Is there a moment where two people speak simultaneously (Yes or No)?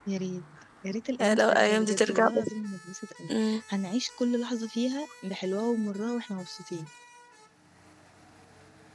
Yes